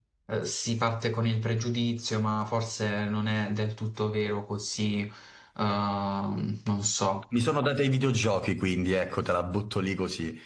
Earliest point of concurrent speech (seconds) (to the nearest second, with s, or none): none